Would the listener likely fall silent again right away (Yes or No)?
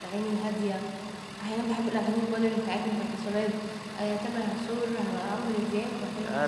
No